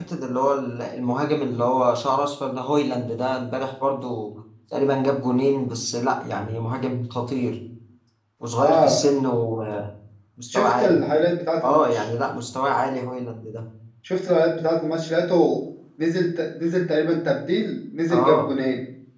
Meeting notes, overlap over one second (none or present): none